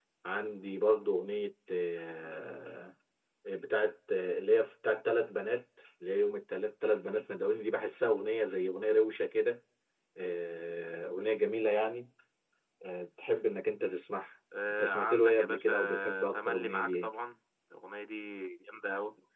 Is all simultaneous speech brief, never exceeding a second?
No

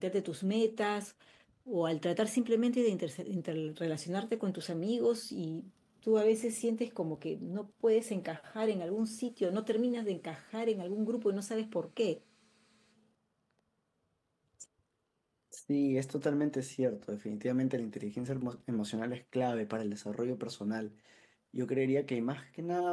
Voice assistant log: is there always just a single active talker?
Yes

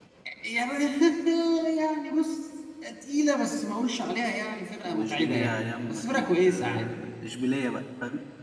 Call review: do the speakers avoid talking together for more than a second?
No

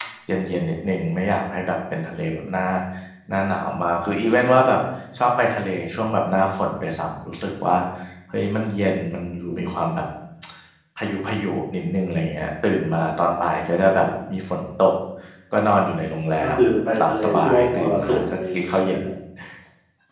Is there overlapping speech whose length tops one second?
Yes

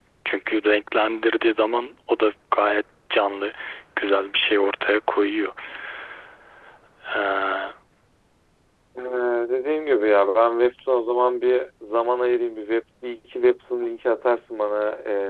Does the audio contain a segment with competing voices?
No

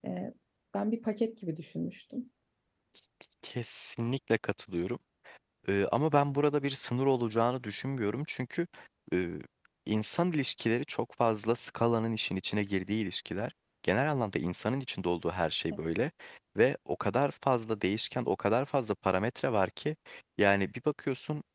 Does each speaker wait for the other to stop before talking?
Yes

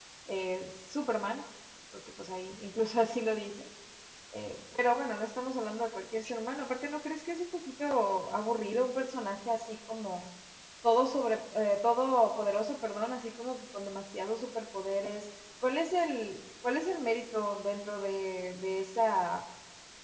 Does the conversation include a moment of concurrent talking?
No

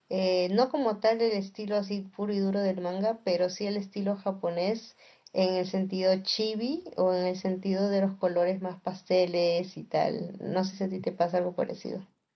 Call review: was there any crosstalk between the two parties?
No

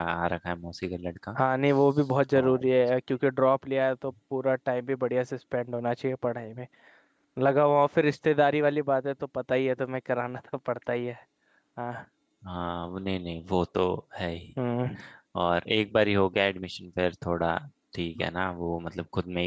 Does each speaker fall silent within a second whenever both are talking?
Yes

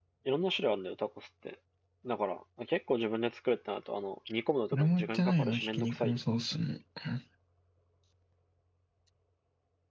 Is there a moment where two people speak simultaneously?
Yes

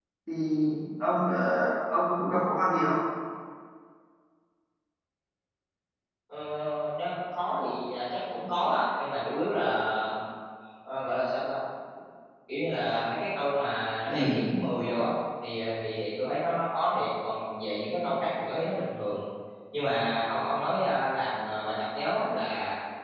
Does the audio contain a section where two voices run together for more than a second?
No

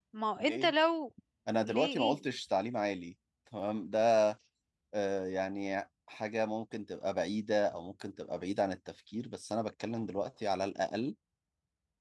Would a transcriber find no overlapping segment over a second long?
Yes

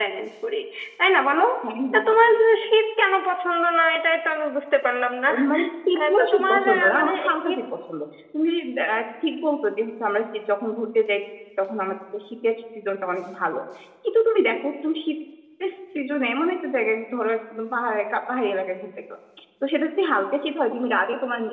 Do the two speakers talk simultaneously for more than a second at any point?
Yes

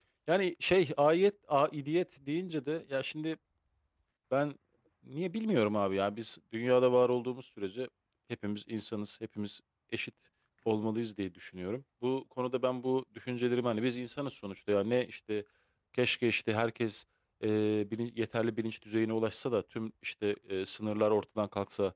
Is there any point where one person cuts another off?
No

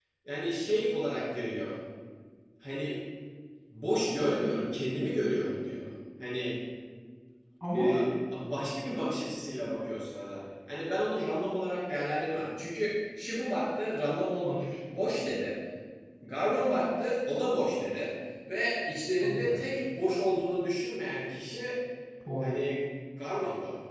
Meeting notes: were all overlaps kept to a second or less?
Yes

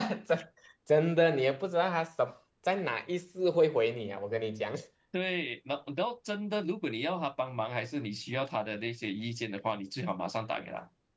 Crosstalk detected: No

